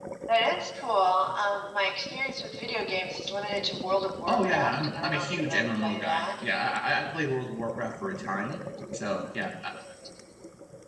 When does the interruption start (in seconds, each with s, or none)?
4.3 s